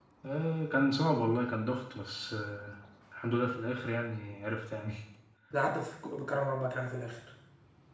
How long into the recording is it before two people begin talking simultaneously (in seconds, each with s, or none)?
none